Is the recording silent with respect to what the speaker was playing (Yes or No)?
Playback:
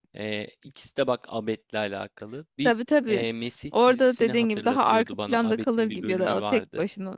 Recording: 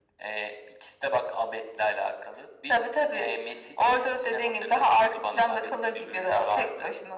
No